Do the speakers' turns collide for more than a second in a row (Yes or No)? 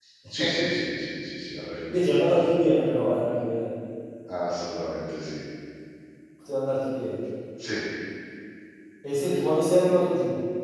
No